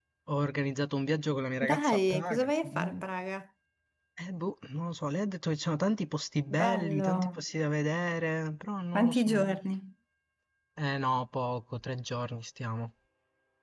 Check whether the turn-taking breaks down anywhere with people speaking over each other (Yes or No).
Yes